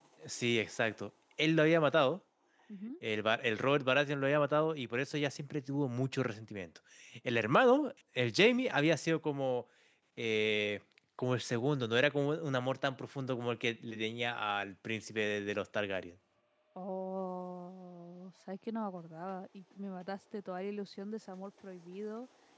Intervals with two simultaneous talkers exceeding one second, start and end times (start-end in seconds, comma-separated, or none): none